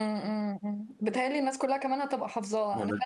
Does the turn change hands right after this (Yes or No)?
No